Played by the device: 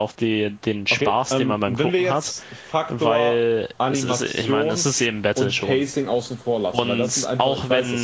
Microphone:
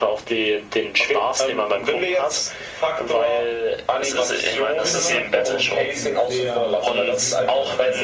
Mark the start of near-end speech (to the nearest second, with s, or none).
5 s